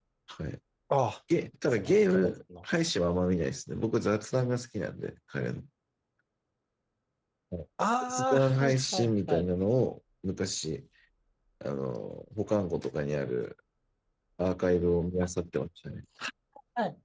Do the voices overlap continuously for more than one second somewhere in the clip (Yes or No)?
Yes